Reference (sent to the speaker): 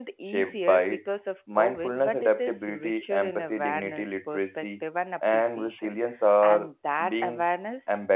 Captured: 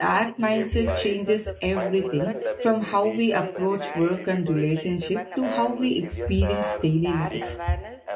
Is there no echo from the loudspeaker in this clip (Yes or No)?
No